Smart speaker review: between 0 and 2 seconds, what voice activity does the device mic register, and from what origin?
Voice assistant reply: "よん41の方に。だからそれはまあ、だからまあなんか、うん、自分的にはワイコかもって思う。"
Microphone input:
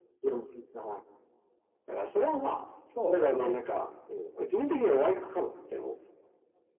echo only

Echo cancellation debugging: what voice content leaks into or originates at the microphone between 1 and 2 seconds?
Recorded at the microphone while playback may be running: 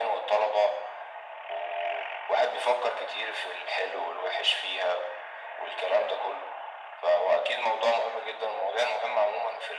echo only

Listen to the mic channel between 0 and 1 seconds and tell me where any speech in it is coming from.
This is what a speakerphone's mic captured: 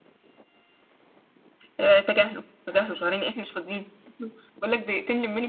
neither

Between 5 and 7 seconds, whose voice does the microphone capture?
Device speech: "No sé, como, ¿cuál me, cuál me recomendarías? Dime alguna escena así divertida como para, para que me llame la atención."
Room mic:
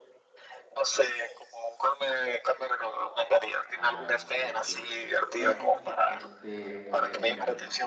both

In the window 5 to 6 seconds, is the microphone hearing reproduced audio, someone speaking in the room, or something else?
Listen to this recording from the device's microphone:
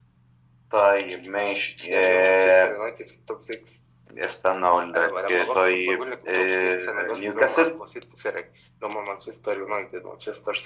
echo only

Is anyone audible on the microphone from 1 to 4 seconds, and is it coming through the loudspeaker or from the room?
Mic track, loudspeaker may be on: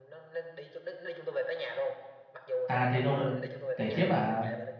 both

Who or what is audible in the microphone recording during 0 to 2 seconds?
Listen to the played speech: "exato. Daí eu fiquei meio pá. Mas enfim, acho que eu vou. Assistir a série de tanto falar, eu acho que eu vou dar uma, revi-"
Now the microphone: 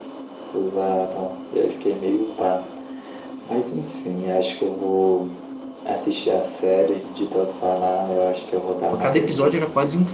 echo only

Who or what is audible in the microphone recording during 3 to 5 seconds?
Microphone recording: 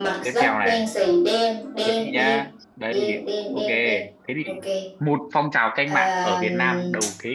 both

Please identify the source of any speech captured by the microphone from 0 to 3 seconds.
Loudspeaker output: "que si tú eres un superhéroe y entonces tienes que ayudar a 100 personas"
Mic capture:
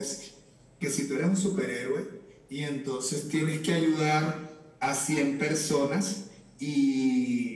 echo only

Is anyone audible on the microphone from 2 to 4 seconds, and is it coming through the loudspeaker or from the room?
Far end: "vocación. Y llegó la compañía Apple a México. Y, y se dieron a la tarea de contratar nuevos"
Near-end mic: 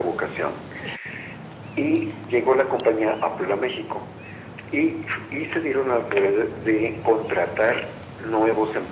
echo only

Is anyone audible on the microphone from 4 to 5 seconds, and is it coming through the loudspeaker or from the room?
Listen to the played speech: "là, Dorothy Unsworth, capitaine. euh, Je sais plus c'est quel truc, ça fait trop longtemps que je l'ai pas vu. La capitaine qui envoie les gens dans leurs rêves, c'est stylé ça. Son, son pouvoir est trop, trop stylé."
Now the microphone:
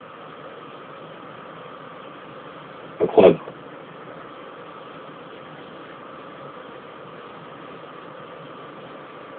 neither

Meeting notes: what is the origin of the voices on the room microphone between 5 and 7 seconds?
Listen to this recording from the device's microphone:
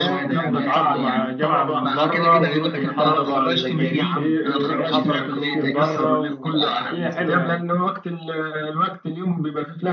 both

